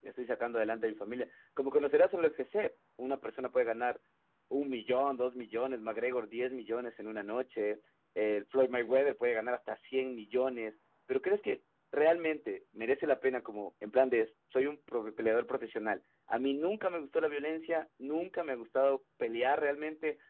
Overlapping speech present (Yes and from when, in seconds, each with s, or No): No